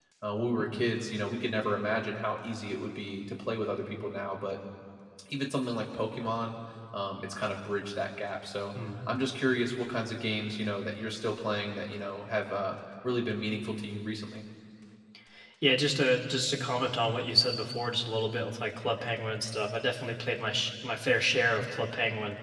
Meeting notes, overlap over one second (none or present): none